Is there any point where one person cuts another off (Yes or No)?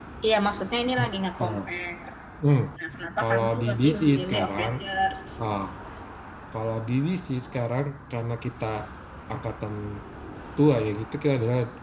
Yes